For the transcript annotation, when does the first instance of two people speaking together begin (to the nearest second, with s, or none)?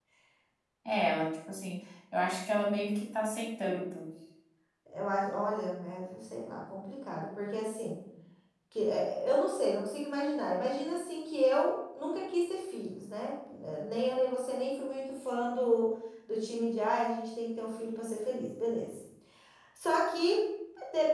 none